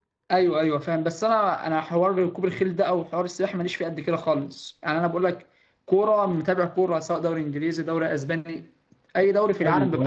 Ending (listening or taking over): taking over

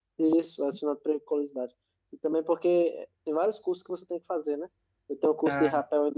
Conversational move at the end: listening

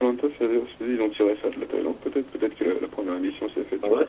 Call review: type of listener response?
taking over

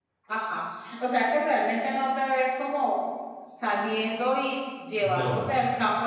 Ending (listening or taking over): listening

